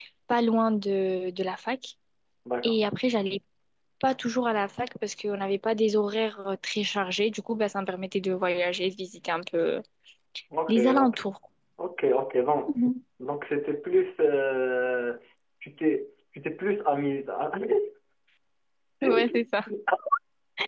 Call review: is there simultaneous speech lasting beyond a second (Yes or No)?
No